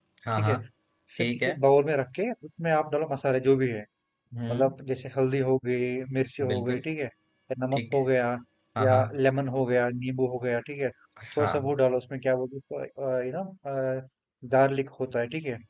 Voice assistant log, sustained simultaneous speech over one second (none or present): none